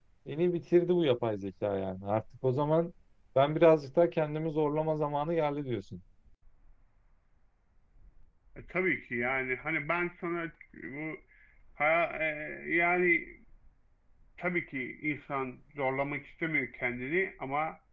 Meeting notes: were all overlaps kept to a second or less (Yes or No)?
Yes